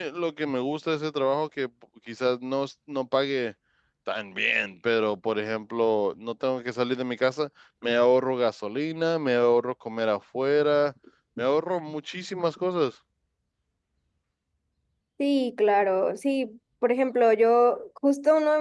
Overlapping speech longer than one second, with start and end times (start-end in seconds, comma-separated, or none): none